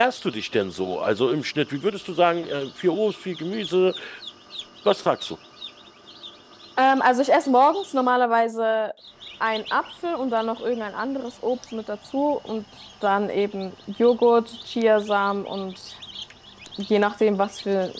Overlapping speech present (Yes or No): No